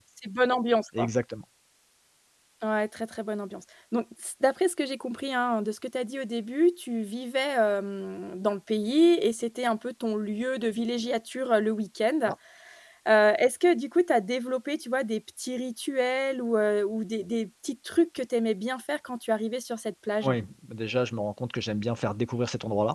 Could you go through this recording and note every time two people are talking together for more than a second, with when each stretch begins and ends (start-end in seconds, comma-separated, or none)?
none